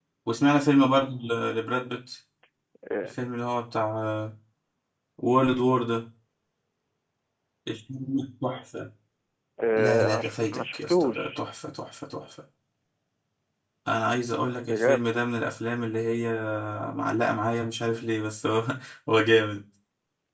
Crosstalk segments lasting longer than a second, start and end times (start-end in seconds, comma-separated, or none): 9.8-11.4